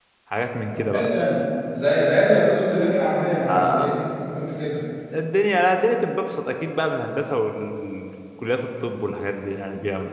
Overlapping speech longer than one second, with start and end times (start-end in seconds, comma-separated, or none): none